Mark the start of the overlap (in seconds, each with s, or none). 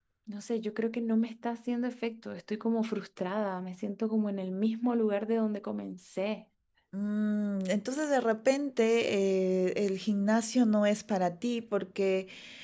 none